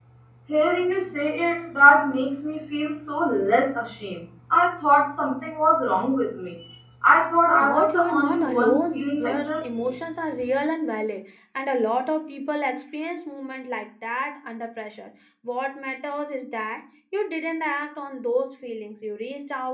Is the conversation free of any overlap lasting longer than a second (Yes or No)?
No